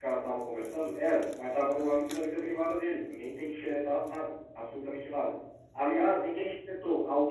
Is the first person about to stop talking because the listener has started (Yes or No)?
No